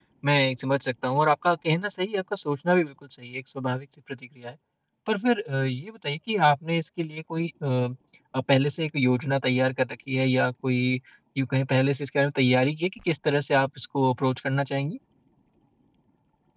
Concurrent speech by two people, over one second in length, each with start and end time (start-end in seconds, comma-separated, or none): none